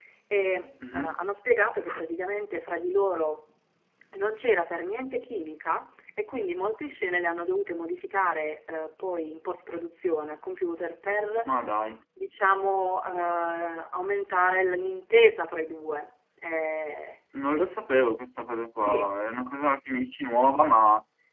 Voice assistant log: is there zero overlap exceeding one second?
Yes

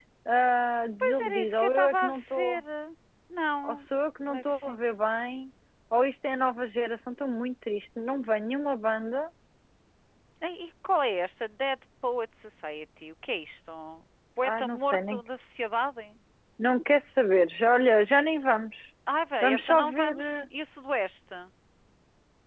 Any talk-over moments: Yes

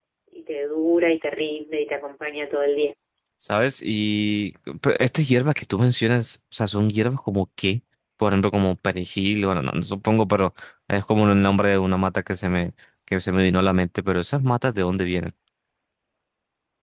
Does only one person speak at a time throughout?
Yes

